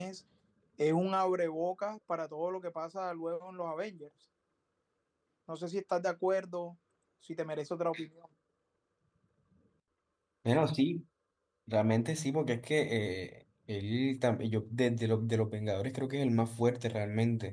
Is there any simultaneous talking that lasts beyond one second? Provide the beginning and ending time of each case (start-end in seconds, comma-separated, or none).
none